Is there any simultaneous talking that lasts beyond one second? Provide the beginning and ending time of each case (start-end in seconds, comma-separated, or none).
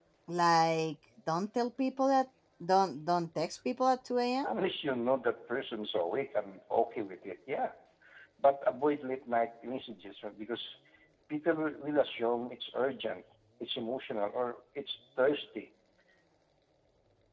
none